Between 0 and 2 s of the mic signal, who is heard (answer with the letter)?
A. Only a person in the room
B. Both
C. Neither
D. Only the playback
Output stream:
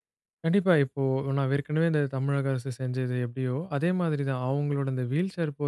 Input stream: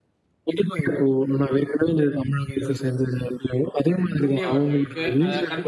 D